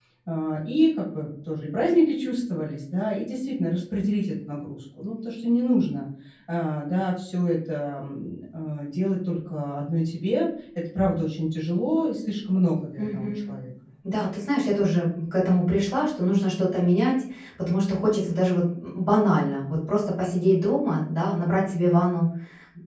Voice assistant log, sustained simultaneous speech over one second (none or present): none